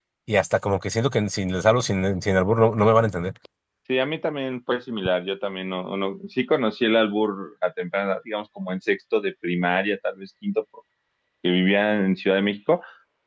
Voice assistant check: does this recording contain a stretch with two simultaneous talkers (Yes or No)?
No